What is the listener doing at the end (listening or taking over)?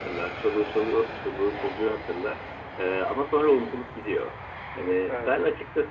listening